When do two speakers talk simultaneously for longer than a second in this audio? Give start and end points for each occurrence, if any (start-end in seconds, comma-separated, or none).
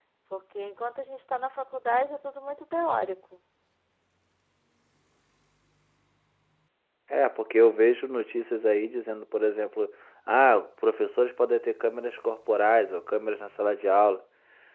none